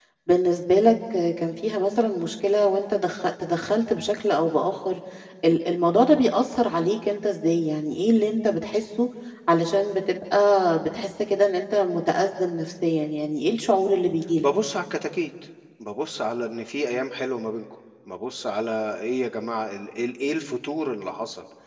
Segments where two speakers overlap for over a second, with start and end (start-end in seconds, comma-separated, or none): none